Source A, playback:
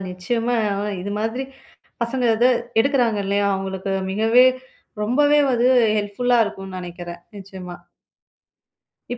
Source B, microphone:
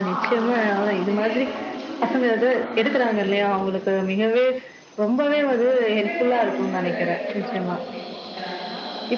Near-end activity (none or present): present